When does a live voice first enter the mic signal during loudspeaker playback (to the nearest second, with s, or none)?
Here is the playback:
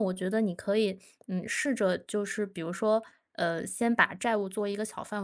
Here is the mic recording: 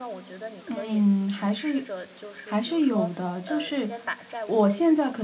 1 s